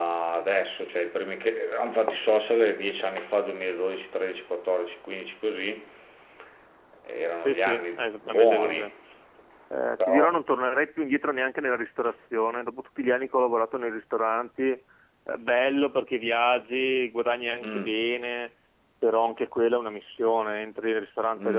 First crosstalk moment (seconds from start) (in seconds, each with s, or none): 7.4 s